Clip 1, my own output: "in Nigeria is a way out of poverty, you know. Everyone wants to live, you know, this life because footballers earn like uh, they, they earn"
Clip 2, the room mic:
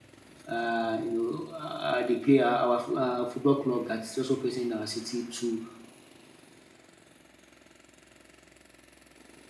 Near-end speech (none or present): present